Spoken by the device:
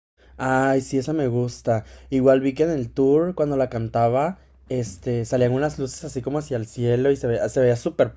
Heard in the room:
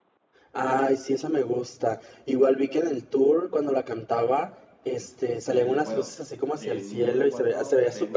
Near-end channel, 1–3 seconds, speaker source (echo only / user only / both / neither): echo only